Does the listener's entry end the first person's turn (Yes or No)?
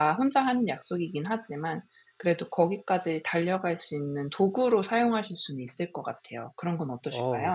Yes